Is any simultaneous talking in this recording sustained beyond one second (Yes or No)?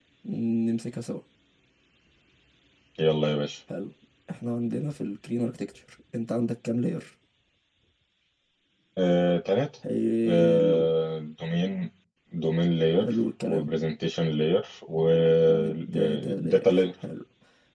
Yes